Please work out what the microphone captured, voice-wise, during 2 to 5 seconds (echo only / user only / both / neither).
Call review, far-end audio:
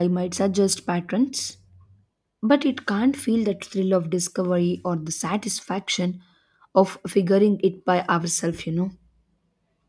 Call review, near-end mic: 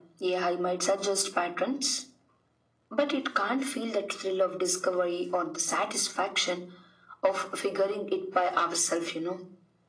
echo only